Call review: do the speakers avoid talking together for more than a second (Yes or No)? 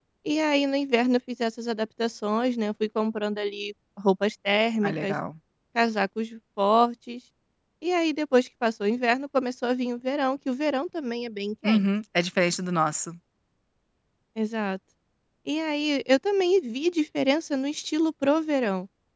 Yes